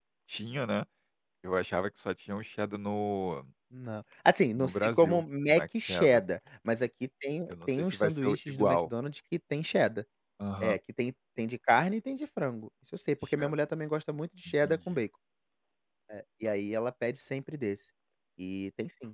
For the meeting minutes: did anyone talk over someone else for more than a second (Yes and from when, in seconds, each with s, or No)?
Yes, from 4.6 s